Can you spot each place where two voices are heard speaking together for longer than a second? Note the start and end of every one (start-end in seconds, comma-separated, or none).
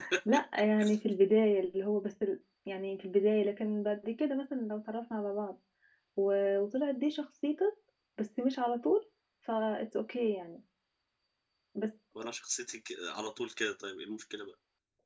none